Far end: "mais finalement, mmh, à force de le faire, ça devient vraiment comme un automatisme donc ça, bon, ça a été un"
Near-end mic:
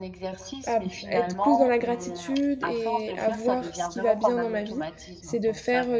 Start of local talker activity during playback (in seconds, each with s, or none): 0.7 s